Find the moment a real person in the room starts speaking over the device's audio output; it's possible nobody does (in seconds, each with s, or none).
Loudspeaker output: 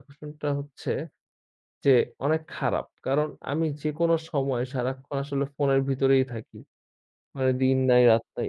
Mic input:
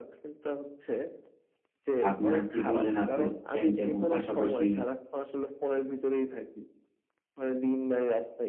2.1 s